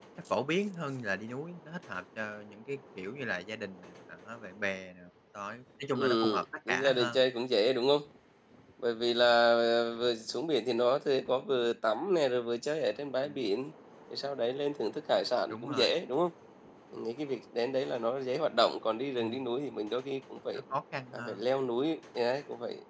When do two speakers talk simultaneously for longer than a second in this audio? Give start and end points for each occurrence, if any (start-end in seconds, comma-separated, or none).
6.0-7.2